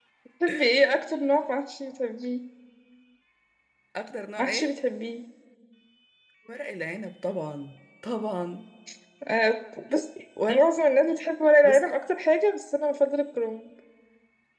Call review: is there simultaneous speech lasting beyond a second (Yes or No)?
No